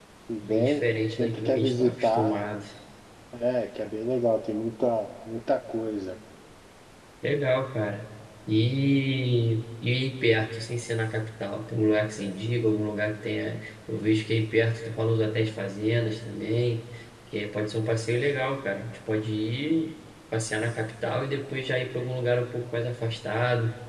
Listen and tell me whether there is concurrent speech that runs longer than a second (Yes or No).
Yes